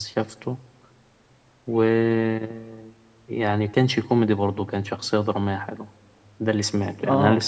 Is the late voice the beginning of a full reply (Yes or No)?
Yes